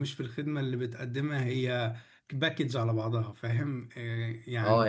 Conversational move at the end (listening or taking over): taking over